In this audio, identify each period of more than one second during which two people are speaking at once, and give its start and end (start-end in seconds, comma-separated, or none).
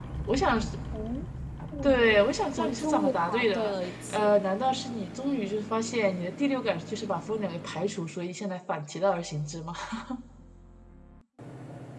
2.6-4.4